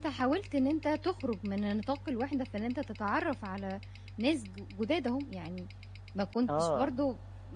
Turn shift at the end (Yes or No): No